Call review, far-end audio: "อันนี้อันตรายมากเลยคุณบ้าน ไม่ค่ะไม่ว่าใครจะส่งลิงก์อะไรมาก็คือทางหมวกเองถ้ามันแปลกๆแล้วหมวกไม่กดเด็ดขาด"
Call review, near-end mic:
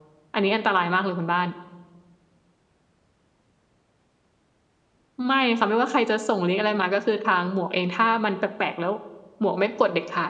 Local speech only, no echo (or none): none